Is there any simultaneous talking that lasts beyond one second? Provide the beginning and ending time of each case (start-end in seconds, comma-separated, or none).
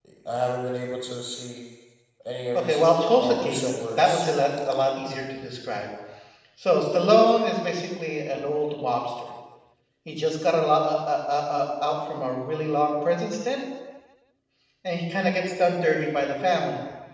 2.5-4.3